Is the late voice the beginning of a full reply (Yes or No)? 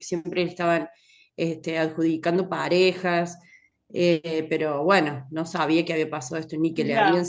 Yes